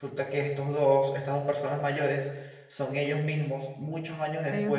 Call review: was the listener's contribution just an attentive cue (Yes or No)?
Yes